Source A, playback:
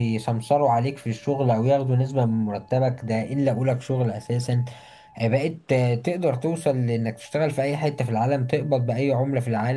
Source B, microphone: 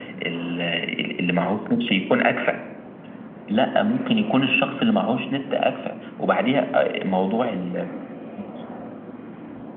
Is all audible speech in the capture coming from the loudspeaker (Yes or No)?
No